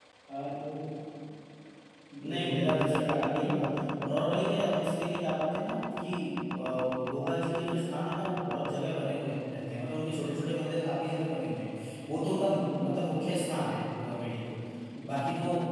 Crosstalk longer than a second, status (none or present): present